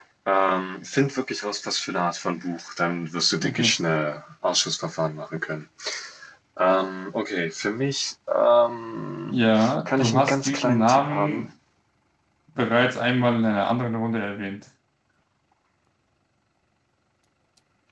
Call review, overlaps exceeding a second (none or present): present